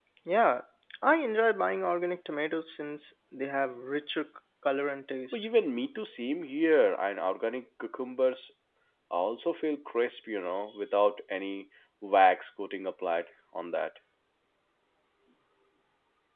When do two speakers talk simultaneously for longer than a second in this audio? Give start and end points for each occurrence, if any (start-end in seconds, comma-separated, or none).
none